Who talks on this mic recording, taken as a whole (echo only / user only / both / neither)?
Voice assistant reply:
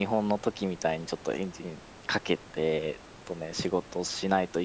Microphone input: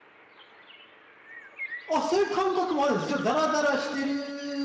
user only